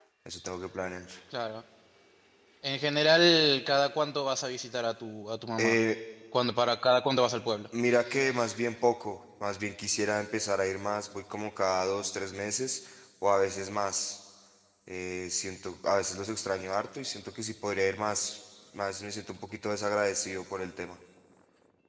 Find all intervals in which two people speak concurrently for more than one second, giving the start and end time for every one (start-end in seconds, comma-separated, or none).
none